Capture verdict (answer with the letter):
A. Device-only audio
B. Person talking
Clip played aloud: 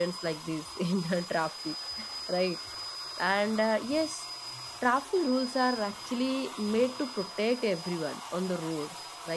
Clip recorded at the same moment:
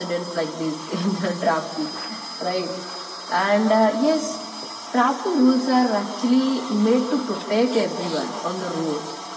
A